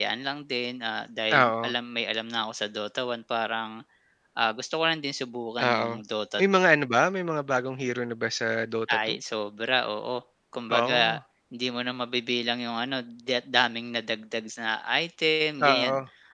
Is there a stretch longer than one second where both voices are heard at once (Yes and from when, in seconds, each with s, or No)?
No